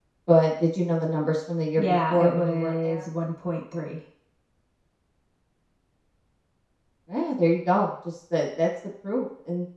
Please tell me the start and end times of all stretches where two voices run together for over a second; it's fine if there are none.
1.8-3.1

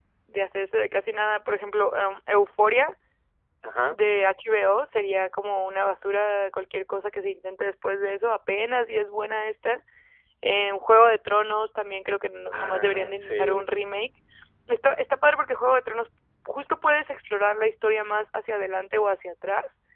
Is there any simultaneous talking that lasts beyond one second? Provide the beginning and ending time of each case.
12.5-13.7

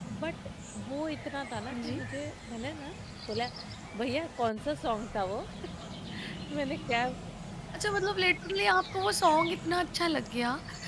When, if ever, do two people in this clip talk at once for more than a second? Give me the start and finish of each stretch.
none

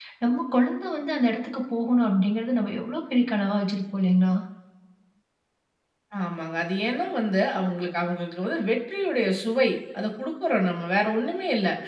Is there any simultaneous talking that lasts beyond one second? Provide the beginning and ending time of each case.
none

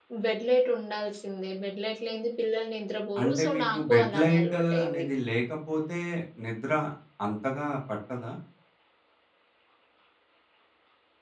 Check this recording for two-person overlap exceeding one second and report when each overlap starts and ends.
3.2-5.0

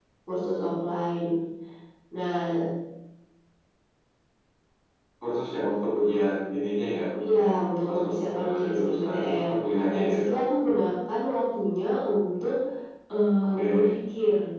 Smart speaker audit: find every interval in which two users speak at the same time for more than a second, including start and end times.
7.3-9.4

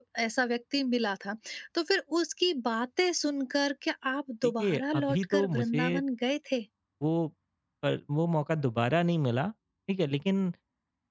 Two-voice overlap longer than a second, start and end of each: 4.4-6.0

